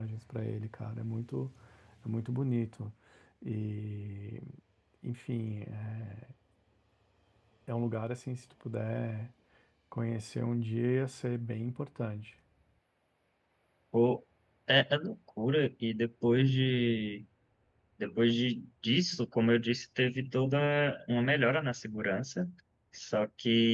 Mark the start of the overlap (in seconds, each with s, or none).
none